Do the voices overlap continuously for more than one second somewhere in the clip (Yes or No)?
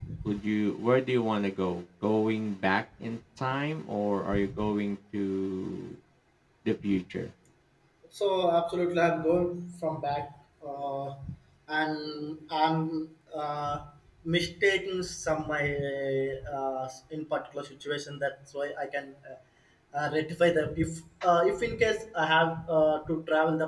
No